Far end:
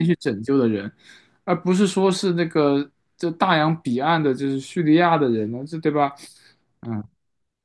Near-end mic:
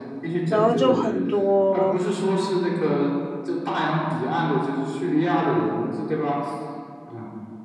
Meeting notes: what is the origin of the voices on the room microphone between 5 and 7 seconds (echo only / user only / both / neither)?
echo only